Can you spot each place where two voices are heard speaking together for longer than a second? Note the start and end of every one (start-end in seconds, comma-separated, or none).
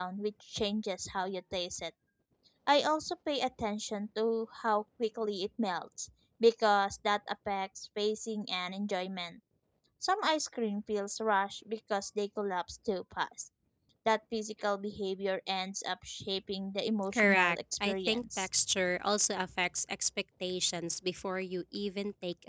17.1-18.5